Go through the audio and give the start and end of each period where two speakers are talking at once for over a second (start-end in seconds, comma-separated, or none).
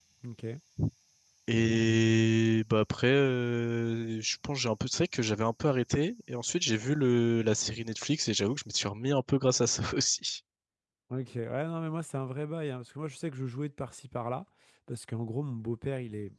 none